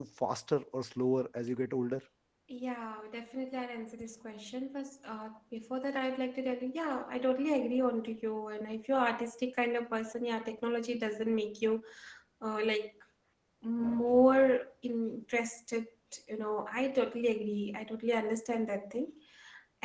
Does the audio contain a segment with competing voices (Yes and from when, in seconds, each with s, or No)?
No